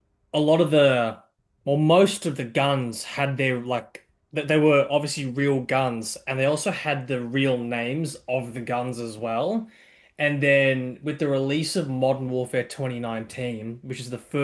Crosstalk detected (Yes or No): No